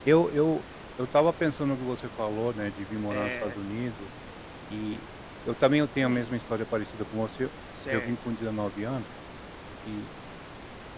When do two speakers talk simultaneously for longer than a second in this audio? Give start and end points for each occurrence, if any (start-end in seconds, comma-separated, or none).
none